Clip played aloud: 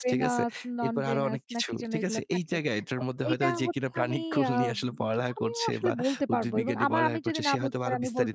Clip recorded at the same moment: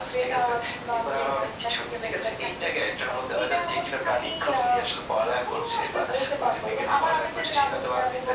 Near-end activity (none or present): none